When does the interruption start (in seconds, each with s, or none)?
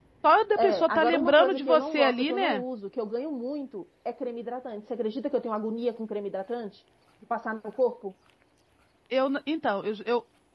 0.6 s